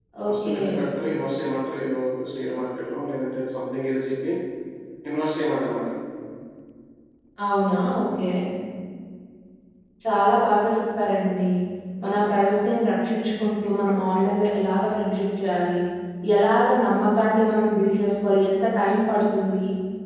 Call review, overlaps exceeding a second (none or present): none